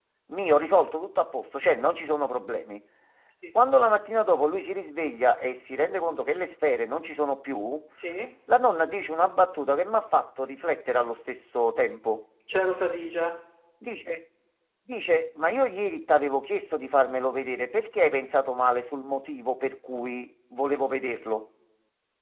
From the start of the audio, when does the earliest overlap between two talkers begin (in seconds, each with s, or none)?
none